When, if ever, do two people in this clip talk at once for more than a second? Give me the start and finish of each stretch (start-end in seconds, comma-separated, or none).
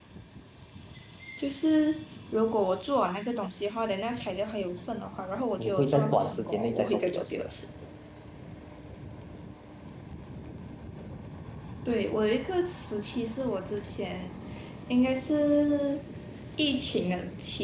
5.6-7.5